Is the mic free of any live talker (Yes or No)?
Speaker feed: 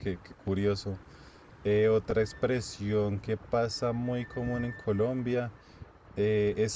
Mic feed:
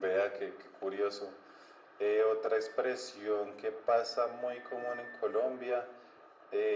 Yes